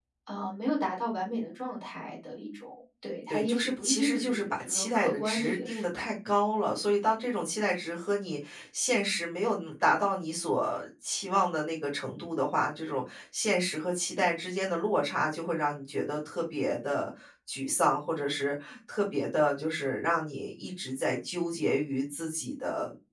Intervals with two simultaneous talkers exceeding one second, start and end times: 3.3-6.1

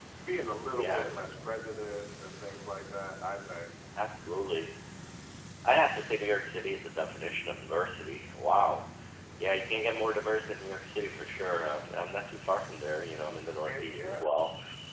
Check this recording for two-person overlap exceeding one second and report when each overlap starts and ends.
none

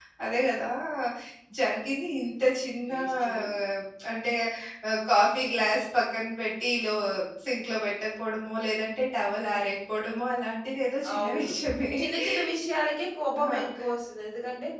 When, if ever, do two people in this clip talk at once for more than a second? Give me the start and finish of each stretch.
none

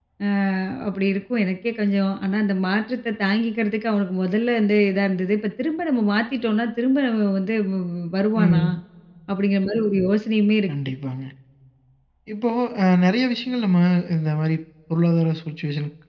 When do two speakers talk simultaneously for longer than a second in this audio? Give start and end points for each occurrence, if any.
none

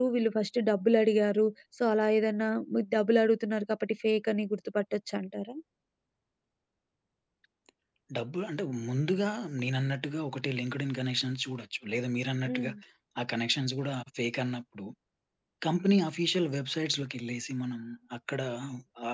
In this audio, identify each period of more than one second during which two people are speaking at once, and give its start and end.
none

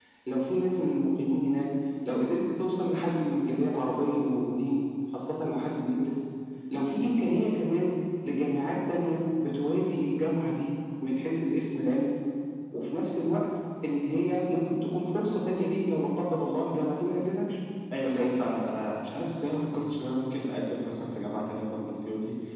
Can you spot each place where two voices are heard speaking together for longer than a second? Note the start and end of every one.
none

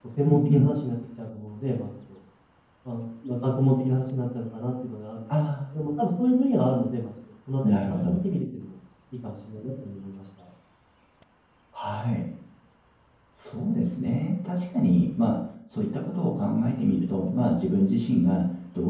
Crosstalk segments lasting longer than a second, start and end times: none

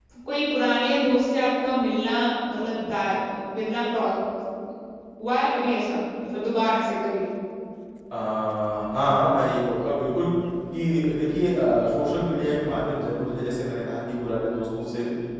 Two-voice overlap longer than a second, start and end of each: none

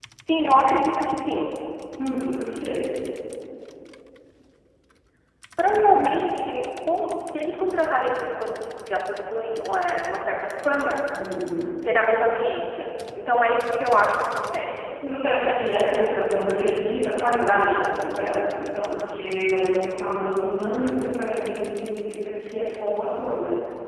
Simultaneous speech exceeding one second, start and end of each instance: 15.4-16.7

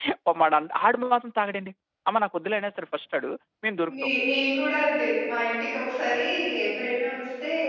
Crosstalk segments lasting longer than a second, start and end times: none

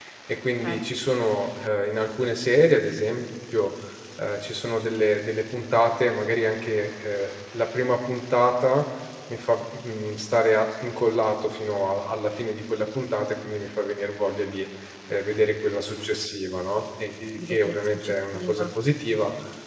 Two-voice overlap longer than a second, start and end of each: 17.4-18.6

